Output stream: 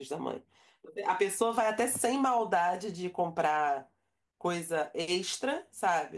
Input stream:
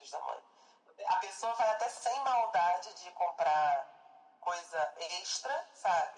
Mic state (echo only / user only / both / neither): echo only